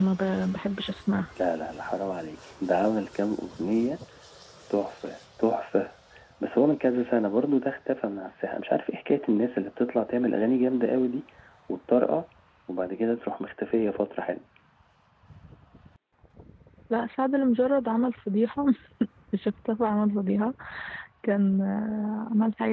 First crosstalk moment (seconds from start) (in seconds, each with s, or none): none